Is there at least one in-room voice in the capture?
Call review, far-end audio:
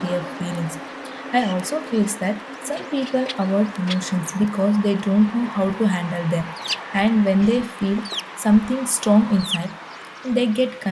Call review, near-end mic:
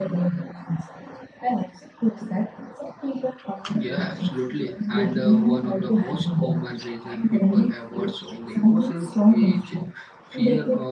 Yes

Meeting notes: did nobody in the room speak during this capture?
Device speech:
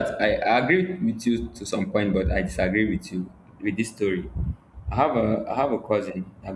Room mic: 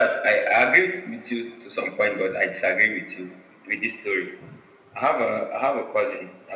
Yes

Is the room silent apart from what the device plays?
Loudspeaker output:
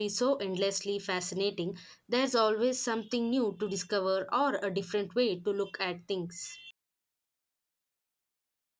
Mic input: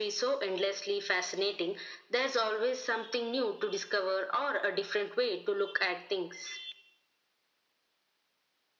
Yes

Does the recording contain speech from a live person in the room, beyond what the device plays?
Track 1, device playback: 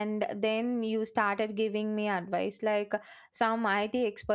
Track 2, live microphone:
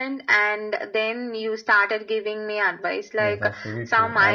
Yes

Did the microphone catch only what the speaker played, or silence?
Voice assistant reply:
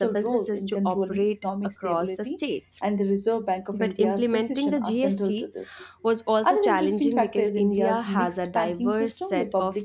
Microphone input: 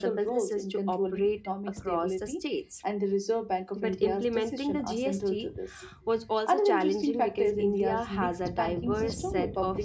Yes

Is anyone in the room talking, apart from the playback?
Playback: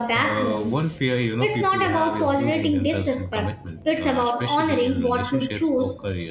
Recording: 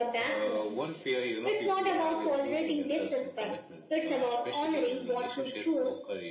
No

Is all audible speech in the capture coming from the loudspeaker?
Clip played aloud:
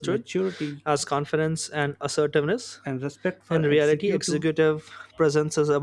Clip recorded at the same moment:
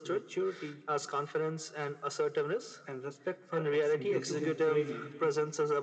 No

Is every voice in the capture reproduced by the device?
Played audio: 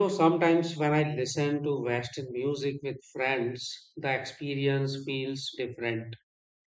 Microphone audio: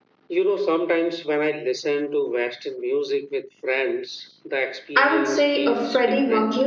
No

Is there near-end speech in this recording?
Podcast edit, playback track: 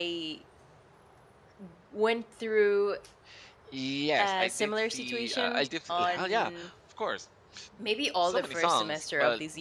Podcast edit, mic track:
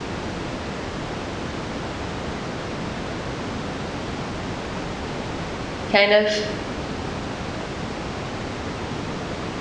Yes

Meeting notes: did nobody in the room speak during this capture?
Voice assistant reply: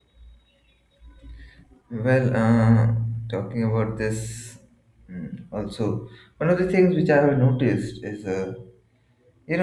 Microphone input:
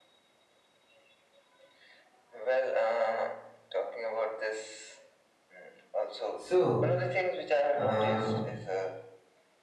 No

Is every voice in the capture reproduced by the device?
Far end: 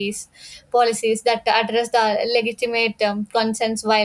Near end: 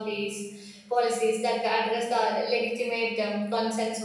Yes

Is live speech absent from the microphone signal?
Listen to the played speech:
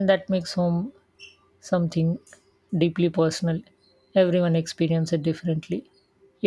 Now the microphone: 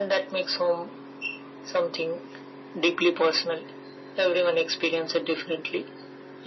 Yes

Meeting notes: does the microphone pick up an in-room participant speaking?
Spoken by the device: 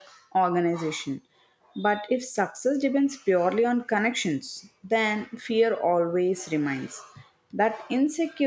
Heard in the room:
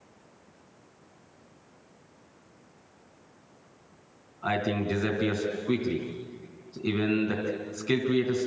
Yes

